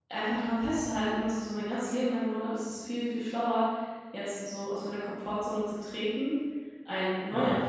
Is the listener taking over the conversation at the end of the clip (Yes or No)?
No